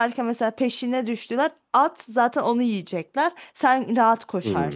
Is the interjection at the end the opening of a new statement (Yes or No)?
Yes